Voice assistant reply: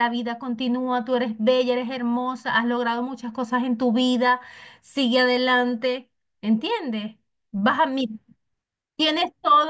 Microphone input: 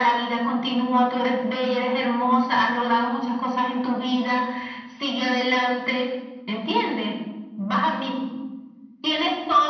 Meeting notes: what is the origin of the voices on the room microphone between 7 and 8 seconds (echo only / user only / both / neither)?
echo only